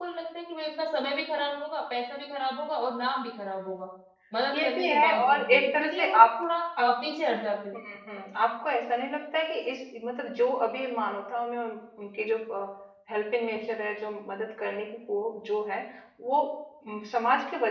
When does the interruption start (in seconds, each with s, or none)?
4.5 s